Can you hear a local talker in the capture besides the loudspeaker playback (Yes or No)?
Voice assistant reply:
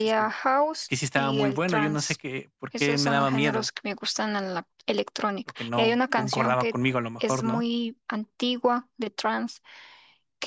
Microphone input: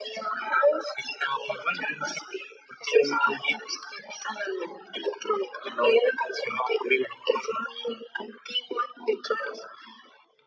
No